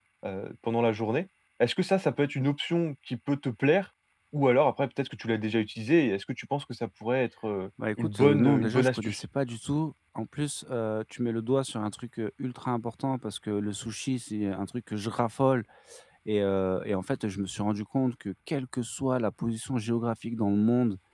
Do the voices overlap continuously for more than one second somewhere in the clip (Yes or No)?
Yes